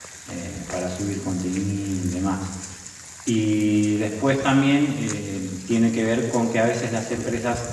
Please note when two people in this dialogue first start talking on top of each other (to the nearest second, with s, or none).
none